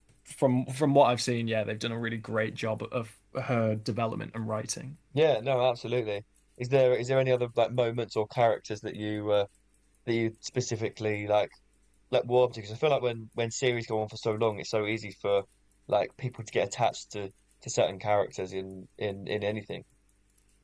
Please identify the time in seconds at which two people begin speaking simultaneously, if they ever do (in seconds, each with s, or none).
none